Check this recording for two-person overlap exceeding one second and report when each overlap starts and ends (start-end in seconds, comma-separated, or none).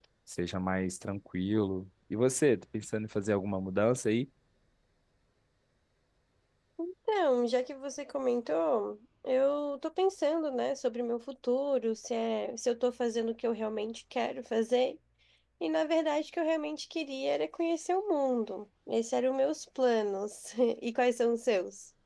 none